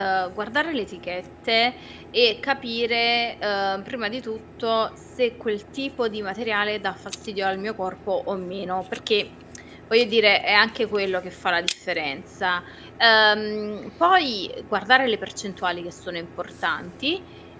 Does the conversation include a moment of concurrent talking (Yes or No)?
No